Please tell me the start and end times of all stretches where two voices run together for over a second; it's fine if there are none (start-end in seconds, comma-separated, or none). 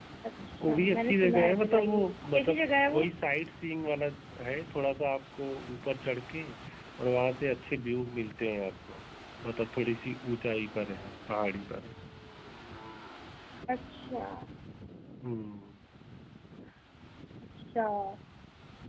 0.6-3.1